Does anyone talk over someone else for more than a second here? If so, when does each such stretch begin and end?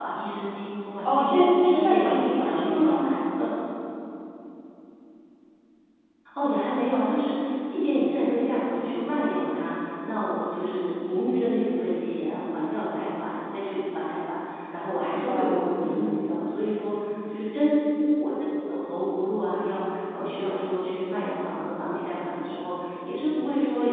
1.0-3.1, 14.9-16.2

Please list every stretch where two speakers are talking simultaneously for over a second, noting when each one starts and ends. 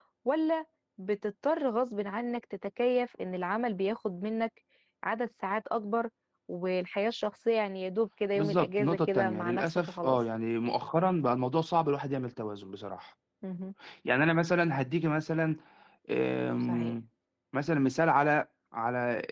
8.4-10.2

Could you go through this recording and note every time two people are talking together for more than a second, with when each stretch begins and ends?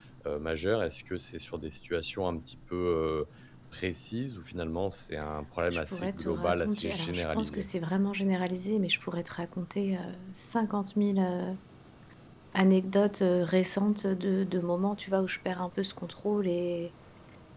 5.7-7.7

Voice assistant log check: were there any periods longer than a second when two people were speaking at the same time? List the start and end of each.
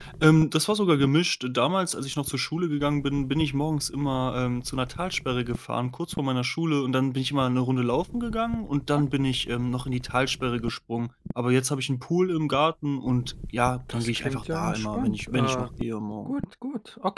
13.9-15.7

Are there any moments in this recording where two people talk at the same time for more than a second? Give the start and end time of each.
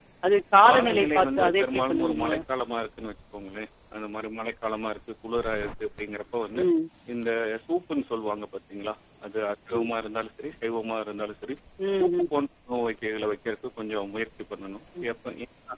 0.7-2.3

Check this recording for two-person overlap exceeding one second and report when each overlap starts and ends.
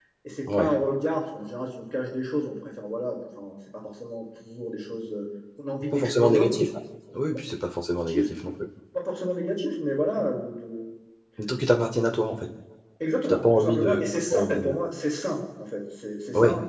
13.2-14.8

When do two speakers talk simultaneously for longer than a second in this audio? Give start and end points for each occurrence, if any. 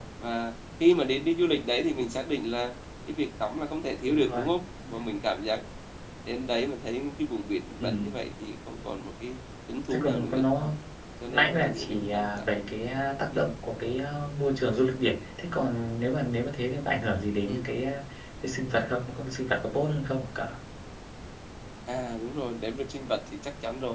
11.2-12.7

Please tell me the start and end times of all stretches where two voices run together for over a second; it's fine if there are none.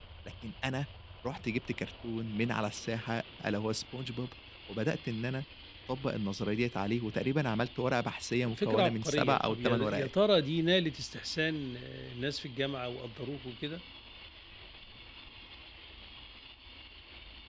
8.5-10.1

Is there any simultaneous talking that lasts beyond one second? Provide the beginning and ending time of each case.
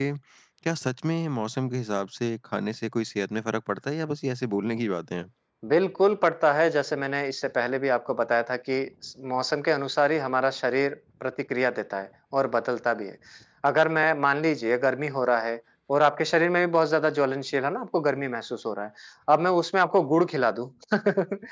none

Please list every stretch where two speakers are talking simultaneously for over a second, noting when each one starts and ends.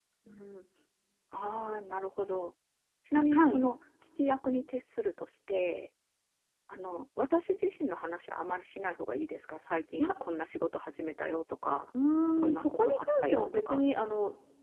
12.5-13.8

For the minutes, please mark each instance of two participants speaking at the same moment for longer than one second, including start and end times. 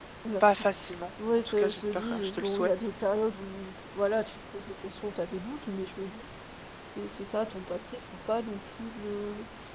1.4-2.9

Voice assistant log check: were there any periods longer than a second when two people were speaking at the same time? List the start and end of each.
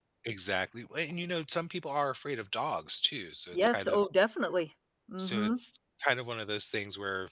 none

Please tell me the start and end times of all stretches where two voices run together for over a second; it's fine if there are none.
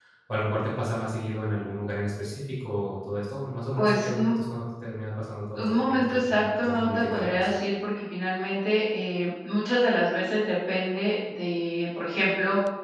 5.6-7.5

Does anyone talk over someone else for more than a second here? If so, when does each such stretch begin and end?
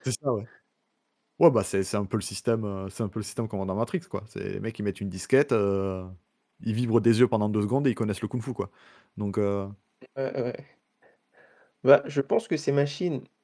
none

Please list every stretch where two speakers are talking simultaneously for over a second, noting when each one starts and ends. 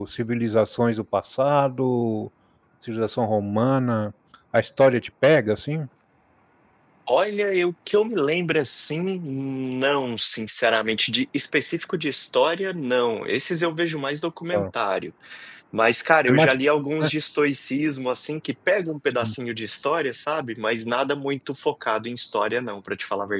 none

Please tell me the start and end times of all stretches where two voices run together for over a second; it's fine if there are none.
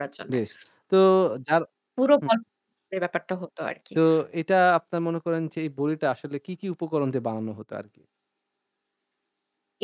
none

